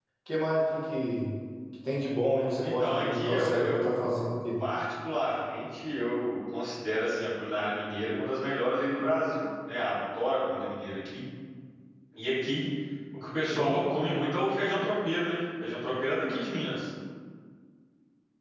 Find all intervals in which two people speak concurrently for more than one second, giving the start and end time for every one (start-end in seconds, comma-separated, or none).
2.6-3.9